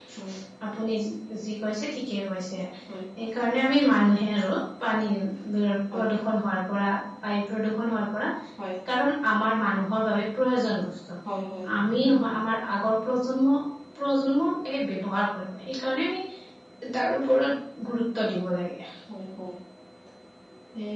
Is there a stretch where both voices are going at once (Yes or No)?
No